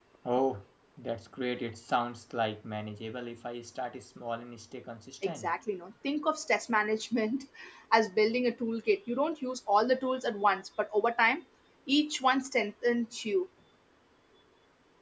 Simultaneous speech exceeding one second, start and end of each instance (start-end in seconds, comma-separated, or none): none